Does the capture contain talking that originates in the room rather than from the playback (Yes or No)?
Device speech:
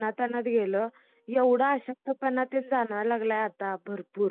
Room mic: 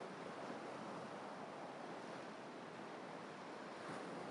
No